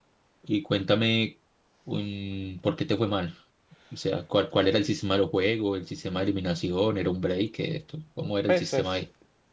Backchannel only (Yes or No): No